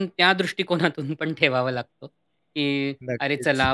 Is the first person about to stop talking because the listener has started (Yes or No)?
No